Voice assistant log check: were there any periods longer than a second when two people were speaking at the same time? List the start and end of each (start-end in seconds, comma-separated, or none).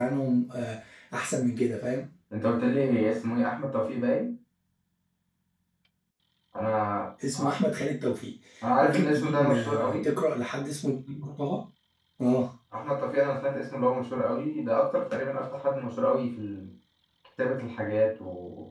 8.8-10.1